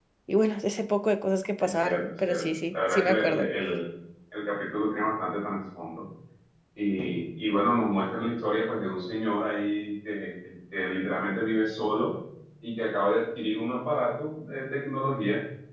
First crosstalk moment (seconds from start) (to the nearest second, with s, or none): 2 s